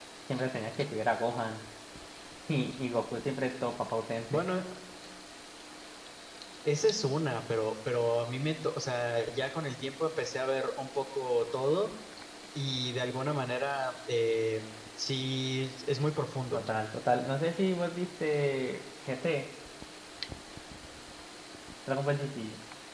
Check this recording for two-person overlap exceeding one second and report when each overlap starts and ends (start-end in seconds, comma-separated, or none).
none